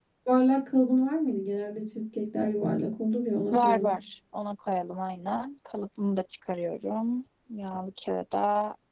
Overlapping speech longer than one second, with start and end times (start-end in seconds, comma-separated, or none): none